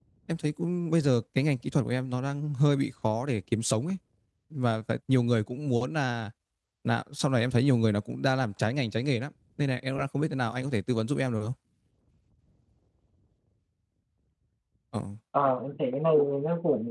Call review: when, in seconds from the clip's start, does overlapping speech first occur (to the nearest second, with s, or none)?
none